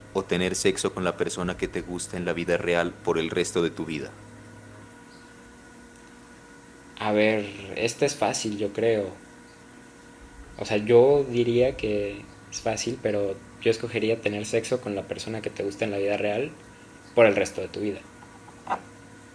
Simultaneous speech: No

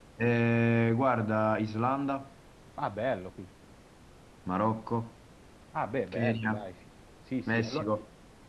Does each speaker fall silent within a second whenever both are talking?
Yes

